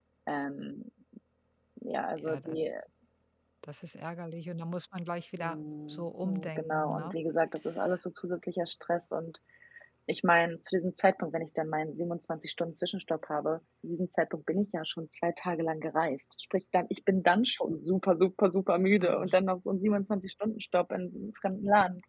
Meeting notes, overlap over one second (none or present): present